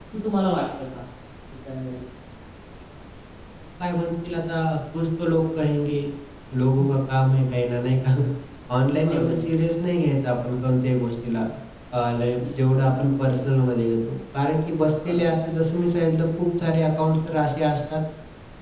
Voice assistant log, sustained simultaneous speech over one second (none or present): none